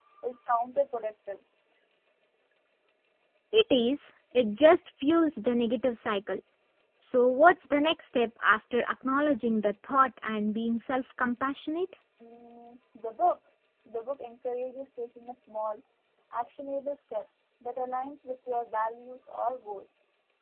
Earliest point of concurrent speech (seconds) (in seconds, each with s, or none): none